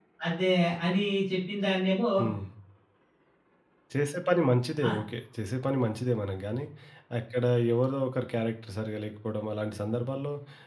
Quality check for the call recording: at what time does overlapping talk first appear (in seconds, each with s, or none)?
none